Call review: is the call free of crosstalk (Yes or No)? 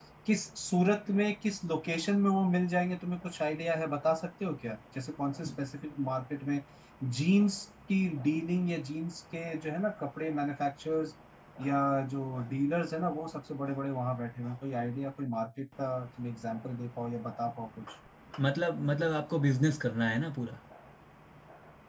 Yes